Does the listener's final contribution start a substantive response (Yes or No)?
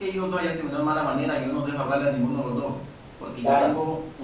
No